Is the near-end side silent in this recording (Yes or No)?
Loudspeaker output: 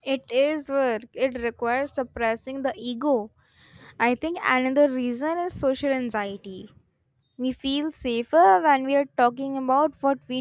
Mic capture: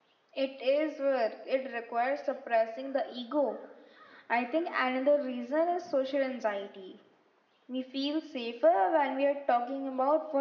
Yes